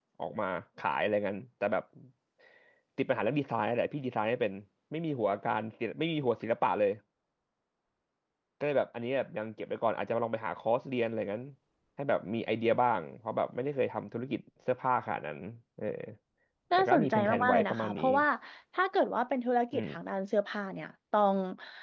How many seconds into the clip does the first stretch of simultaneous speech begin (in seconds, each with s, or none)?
16.8 s